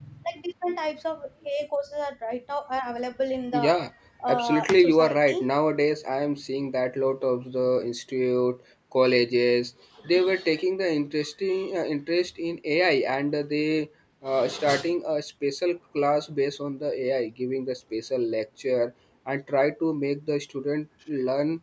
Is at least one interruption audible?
Yes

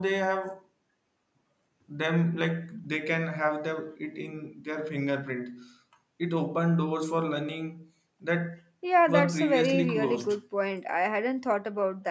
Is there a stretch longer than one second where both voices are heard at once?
Yes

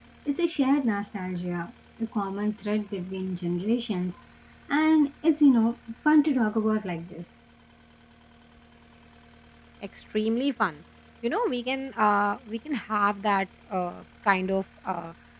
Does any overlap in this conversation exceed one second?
No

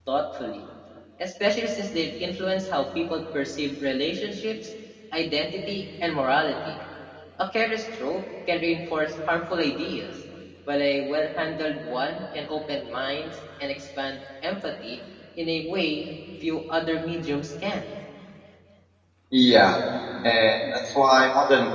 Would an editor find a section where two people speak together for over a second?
No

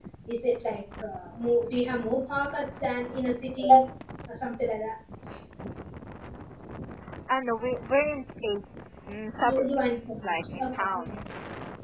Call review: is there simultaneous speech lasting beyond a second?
Yes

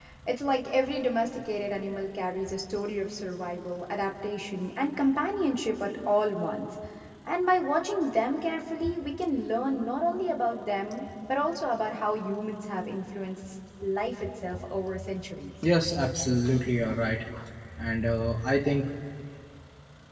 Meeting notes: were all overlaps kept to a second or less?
Yes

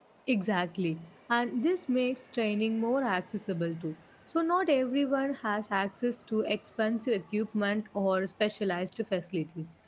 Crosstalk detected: No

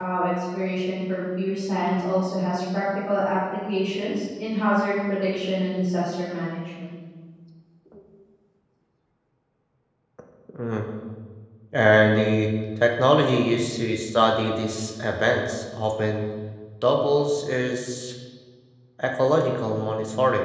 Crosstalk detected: No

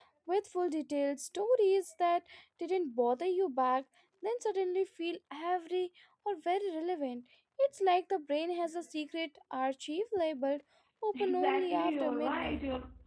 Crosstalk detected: Yes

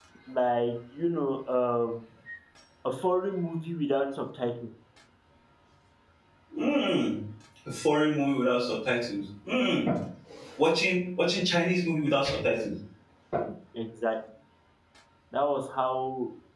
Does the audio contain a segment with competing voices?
No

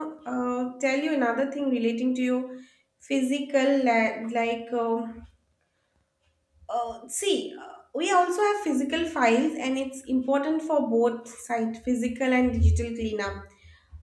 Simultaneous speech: No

